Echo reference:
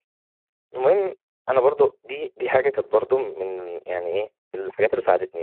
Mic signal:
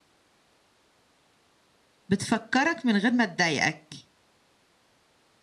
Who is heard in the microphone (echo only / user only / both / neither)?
user only